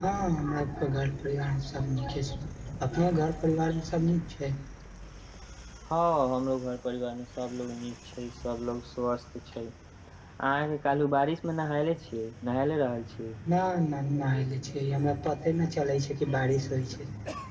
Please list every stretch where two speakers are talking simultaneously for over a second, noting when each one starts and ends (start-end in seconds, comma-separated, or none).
none